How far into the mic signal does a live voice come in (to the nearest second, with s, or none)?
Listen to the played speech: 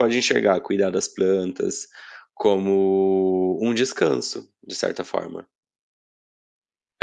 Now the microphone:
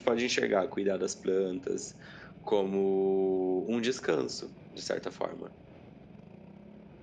none